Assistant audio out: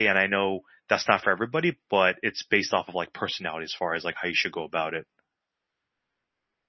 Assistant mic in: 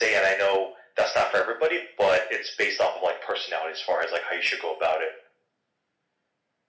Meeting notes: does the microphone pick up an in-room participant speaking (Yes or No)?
No